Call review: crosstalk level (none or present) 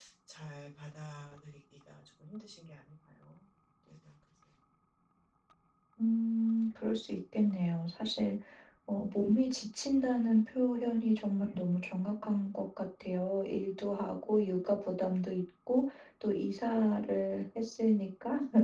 none